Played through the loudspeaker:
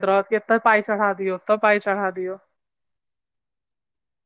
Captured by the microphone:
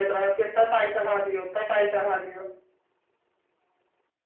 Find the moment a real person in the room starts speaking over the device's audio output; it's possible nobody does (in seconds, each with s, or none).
none